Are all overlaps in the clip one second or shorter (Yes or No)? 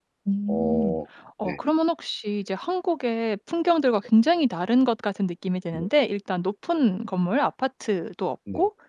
Yes